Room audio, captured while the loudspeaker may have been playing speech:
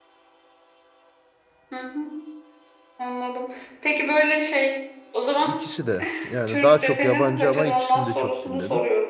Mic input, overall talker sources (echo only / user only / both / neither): both